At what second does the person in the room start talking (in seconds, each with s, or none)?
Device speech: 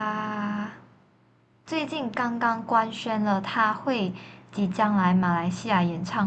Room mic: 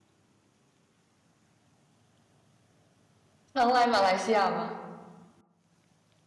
3.5 s